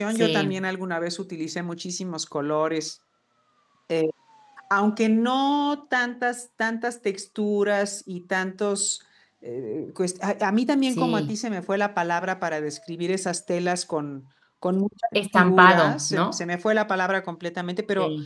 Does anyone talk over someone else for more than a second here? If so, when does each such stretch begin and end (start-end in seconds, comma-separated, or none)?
15.2-16.4